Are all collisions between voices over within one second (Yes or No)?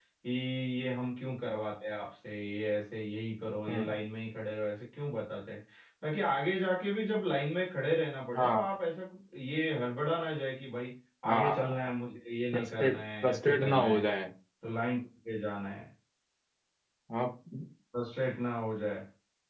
No